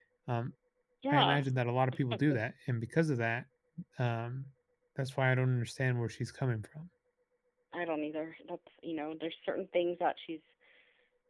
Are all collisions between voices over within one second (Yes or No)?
Yes